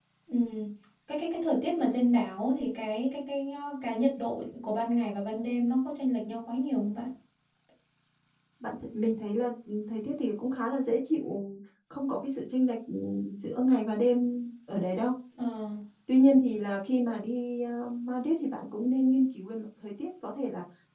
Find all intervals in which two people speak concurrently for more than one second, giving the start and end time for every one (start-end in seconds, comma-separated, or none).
none